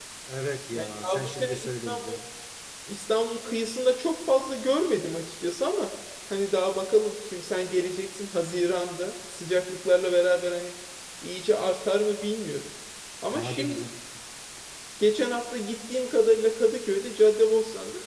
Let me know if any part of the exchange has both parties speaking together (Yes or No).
Yes